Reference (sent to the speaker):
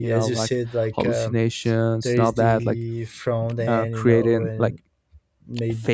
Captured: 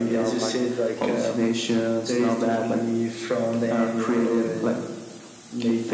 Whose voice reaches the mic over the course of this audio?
echo only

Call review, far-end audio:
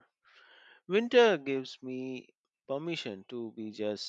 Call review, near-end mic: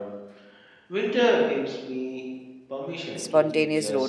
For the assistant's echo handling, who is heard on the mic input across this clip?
both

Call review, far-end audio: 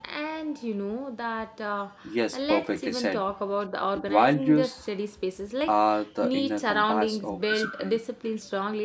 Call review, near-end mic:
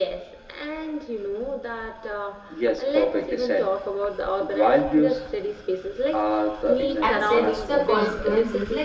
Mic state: both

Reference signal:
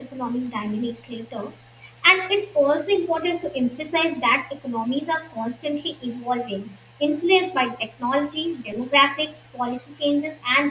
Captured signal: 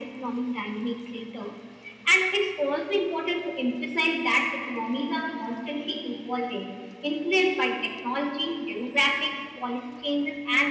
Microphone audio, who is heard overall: echo only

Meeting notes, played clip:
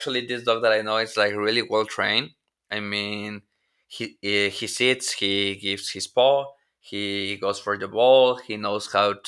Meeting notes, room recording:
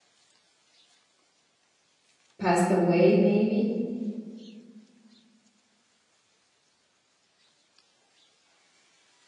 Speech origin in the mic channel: user only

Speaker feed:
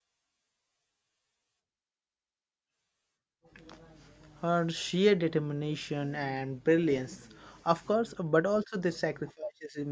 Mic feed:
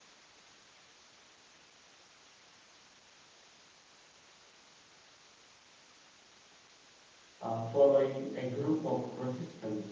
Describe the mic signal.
user only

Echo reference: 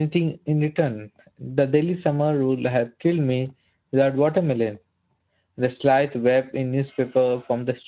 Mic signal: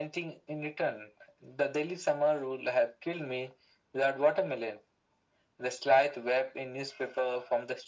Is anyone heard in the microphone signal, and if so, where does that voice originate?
echo only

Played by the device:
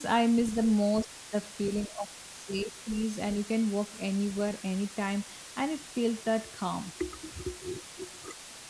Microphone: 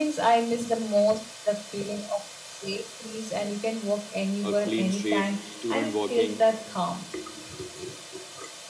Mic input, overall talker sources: both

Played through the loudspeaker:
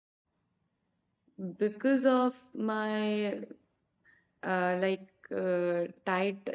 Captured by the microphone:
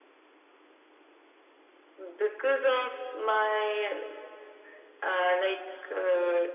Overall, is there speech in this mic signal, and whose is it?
echo only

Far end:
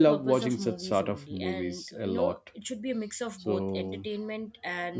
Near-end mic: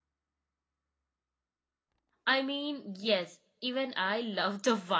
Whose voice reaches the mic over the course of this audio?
user only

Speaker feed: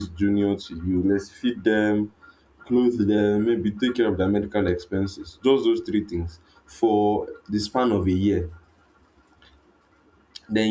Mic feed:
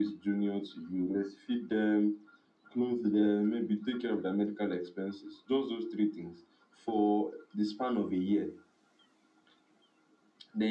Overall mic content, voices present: echo only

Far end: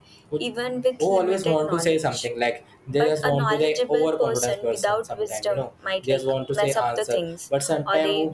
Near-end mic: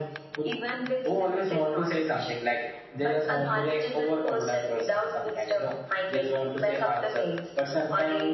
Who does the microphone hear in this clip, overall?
echo only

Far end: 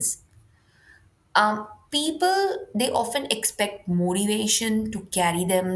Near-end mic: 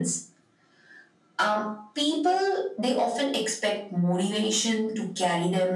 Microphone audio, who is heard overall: echo only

